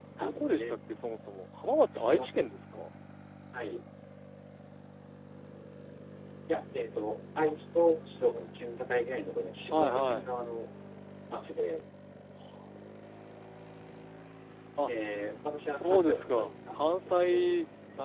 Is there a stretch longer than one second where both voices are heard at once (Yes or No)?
Yes